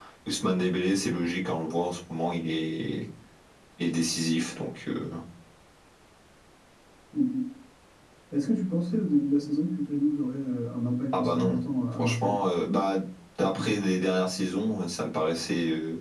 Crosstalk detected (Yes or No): Yes